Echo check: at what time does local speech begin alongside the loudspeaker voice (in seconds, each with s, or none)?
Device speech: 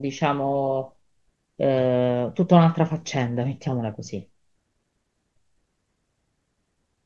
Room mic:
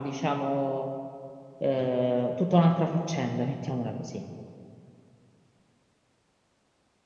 none